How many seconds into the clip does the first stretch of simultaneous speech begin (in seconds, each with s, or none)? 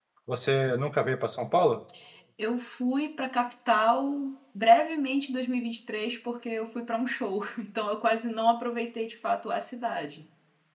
none